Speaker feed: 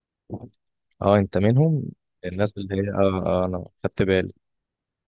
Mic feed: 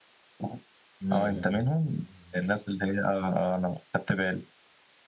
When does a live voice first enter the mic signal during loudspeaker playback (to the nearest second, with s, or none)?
1 s